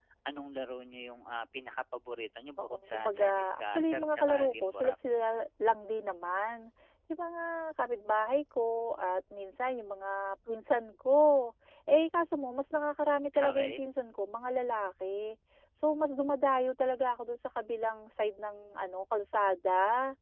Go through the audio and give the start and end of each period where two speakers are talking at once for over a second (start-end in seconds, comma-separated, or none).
2.6-5.0